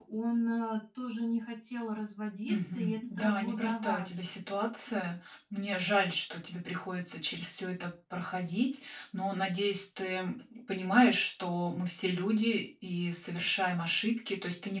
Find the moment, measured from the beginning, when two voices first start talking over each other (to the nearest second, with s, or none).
2 s